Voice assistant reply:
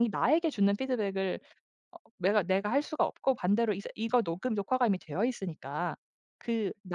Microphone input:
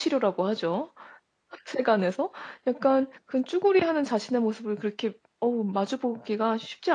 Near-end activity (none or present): present